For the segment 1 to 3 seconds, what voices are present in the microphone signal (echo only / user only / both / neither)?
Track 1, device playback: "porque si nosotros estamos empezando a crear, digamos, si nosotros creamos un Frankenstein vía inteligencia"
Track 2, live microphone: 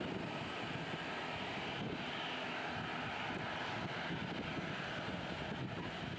neither